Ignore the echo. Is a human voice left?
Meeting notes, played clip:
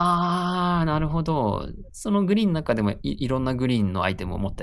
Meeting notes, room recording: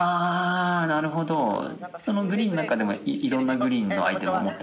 Yes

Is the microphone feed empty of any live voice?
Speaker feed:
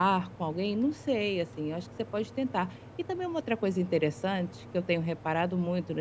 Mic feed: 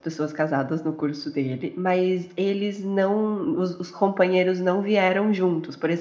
No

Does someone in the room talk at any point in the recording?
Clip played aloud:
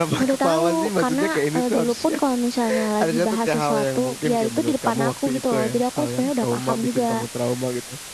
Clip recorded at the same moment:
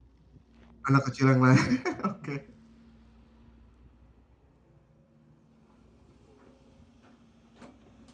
Yes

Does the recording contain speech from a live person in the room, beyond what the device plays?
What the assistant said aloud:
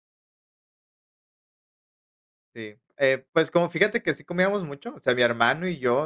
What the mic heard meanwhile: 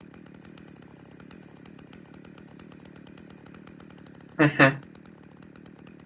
Yes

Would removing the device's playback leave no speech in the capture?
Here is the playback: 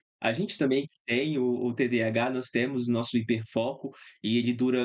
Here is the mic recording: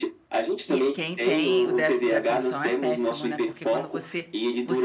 No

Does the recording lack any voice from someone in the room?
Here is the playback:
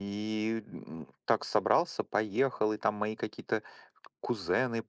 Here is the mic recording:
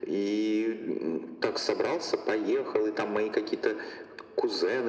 Yes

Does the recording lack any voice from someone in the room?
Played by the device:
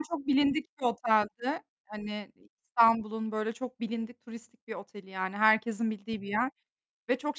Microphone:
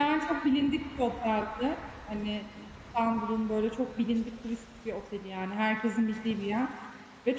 Yes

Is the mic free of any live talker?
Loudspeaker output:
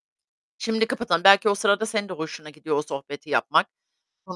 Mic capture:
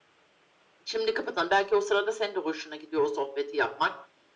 Yes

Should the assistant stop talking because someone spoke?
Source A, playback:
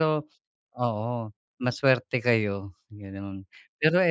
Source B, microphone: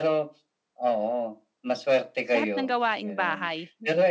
Yes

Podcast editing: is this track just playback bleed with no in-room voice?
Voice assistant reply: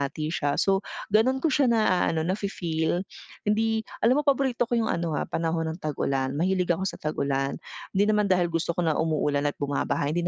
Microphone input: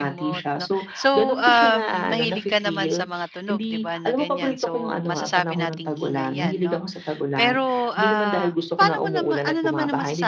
No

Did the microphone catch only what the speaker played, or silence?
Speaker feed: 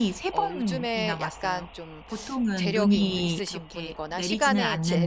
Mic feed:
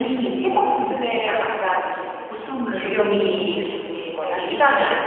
No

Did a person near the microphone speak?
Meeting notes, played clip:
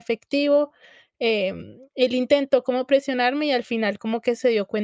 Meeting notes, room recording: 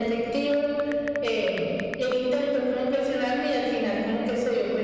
No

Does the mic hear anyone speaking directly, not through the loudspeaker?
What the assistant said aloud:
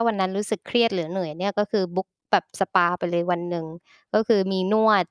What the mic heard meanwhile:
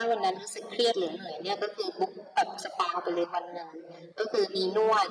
No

